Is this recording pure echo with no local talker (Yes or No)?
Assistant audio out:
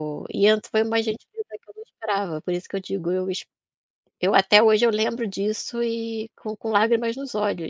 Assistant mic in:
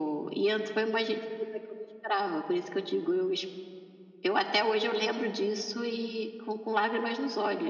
Yes